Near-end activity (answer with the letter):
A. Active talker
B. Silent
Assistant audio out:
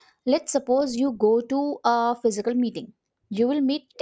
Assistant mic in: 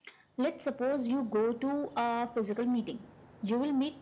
B